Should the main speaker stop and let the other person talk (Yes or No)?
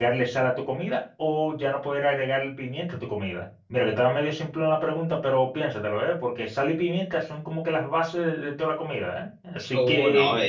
Yes